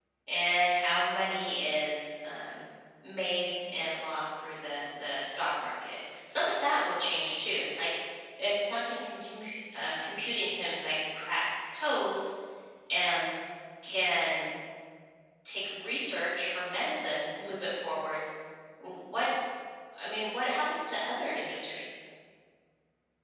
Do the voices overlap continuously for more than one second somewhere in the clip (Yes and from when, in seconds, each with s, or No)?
No